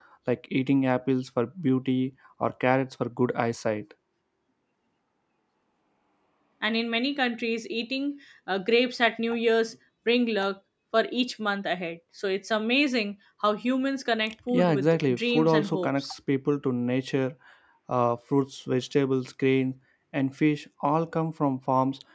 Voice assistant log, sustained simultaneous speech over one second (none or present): present